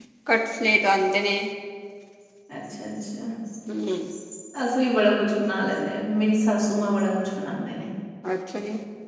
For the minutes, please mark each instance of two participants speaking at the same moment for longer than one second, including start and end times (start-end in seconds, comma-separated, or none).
none